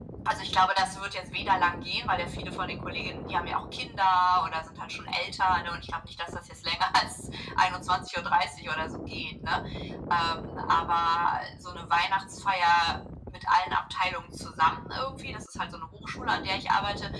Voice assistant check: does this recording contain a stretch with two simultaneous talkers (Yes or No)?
No